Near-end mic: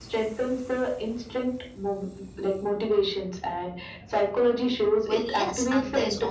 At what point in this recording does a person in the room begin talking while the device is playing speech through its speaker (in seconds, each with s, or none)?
5.0 s